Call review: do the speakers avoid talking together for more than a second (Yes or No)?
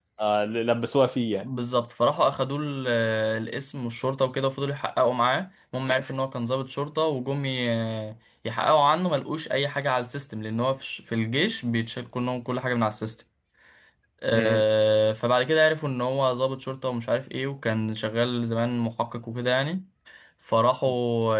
Yes